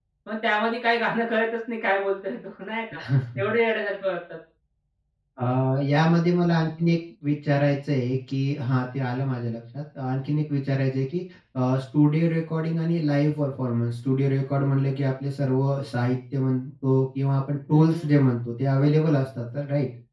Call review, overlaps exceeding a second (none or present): none